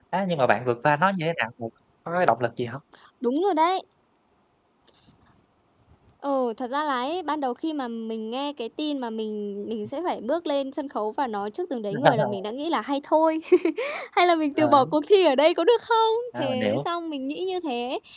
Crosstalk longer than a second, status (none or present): none